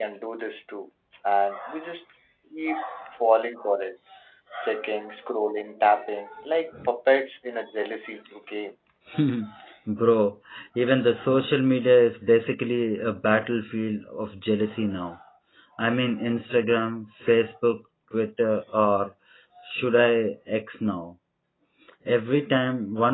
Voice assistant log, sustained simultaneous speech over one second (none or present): none